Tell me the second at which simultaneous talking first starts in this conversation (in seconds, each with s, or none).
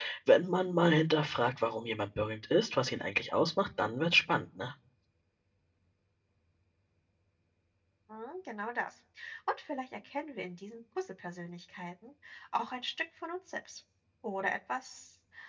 none